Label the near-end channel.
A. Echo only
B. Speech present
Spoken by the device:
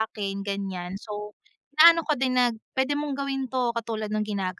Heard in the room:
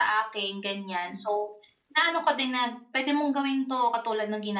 A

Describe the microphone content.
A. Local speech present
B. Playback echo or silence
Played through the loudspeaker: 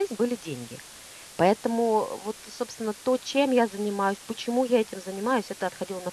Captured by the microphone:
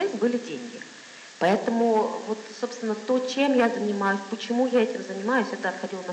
B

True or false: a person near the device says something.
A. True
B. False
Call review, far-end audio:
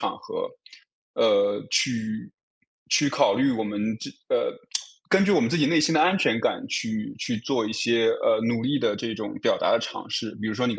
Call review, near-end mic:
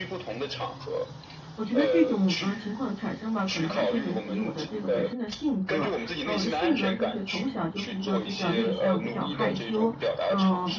A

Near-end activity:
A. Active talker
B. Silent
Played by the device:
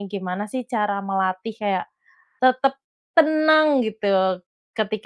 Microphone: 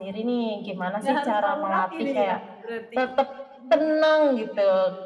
A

